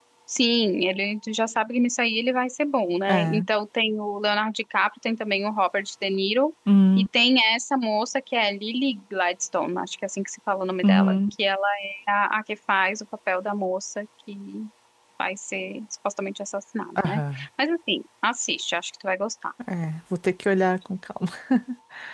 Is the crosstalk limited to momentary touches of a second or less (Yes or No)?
Yes